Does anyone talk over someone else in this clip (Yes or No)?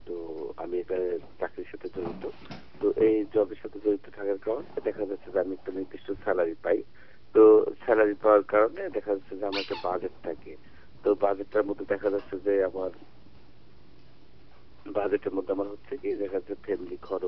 No